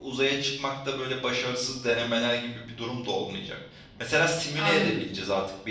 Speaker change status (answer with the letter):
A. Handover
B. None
B